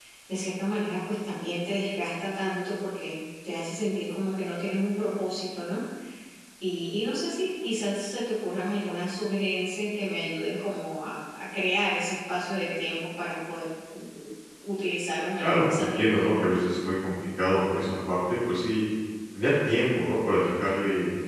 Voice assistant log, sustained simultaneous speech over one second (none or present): present